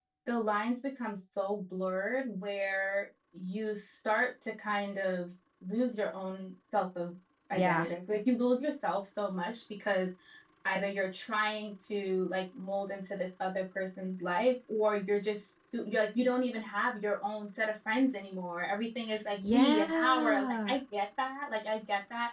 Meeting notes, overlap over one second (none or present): present